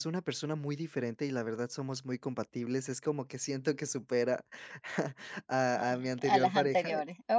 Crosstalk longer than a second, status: present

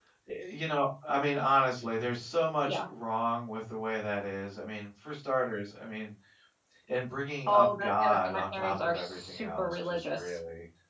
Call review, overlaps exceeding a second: present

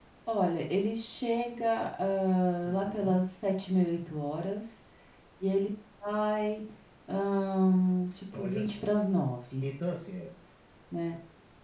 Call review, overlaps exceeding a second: none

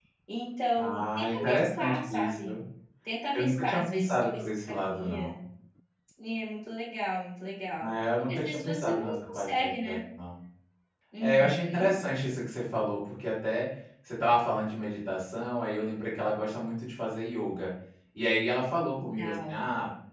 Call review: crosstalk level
present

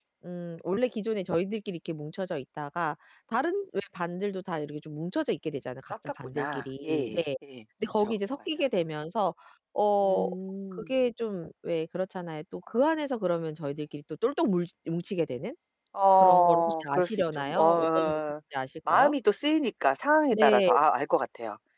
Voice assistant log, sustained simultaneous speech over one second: present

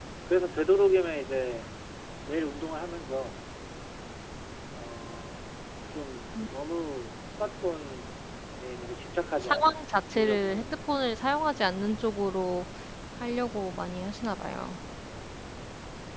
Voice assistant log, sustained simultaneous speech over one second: present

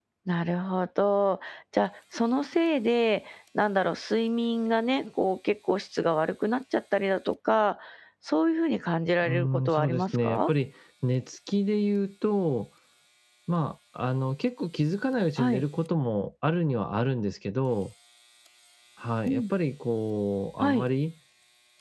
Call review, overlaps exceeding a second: present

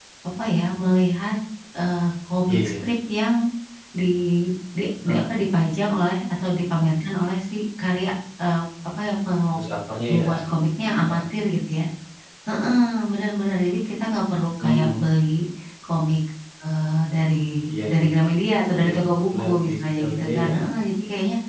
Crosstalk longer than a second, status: present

